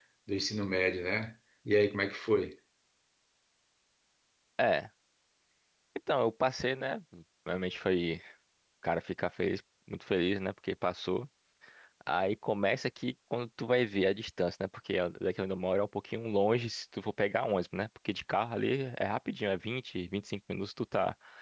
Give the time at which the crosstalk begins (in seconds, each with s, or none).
none